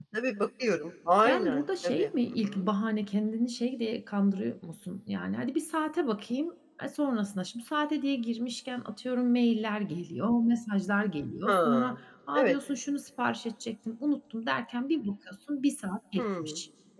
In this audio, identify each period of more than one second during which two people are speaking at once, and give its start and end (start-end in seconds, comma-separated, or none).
1.2-2.7